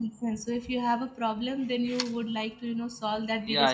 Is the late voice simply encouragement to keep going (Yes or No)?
No